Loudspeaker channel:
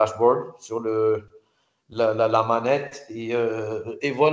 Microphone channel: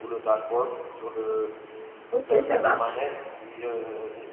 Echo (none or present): present